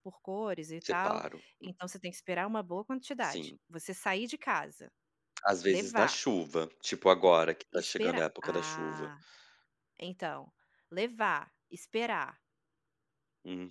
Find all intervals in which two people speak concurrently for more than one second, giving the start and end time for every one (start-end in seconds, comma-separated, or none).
7.7-9.1